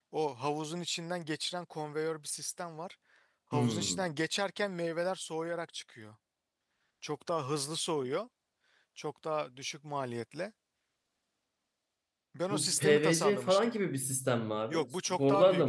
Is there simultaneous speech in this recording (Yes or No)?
Yes